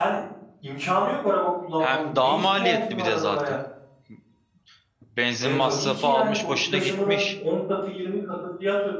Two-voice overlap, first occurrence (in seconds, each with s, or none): 1.8 s